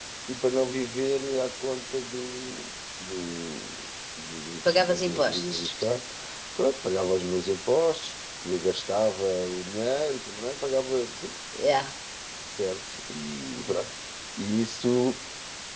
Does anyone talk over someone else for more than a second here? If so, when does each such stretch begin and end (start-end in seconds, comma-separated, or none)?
4.7-6.0